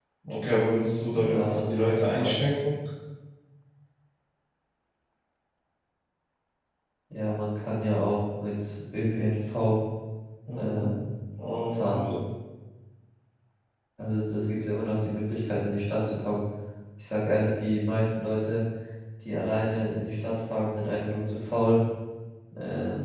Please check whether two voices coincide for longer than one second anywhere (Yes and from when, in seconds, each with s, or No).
Yes, from 1.1 s